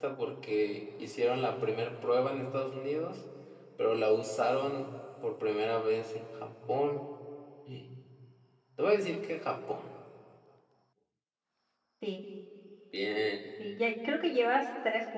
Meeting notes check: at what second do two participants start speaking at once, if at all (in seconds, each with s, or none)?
none